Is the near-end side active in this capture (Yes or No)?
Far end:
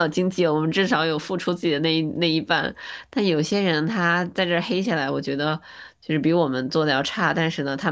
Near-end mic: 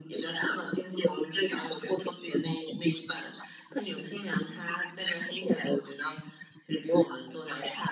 No